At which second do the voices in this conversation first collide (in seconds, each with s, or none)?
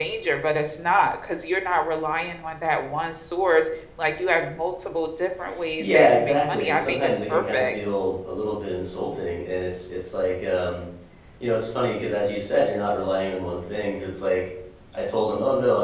5.8 s